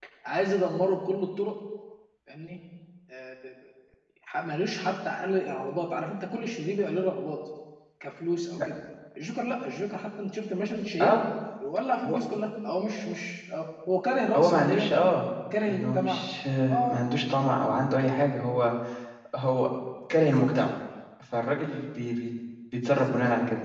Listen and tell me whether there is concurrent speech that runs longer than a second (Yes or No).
No